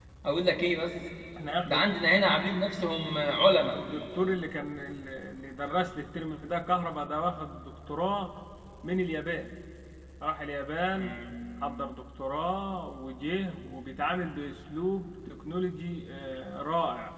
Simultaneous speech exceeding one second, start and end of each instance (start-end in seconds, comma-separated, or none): none